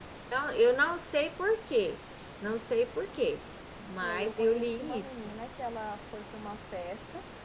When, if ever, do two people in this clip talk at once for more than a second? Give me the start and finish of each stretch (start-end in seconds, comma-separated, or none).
4.0-5.3